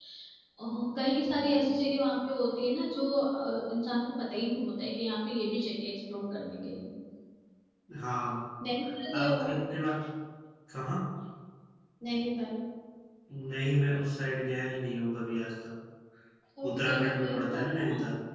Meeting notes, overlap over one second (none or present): present